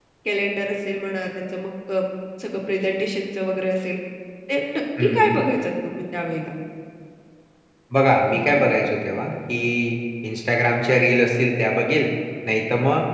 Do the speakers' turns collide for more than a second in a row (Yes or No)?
No